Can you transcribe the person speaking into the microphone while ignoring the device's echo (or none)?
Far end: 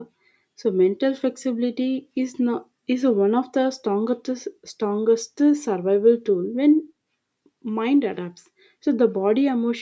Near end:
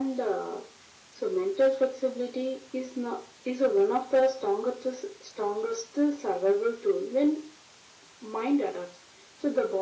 none